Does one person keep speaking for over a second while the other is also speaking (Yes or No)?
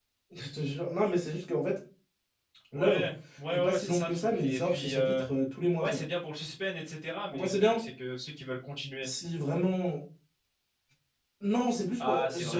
Yes